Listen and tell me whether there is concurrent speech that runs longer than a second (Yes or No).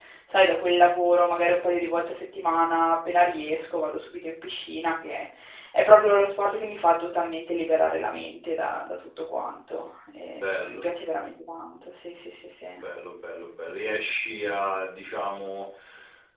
No